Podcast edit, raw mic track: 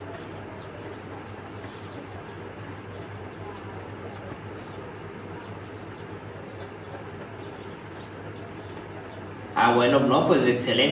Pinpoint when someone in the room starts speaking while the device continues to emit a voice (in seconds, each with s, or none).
9.5 s